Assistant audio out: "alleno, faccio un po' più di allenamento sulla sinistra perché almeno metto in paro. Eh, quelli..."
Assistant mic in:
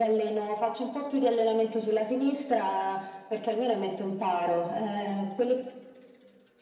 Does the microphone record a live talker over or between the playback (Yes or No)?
No